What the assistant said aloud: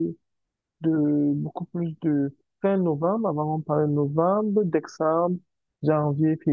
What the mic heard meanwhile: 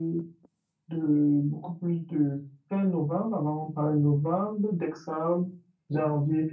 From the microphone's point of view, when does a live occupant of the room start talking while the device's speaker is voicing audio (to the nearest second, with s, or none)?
none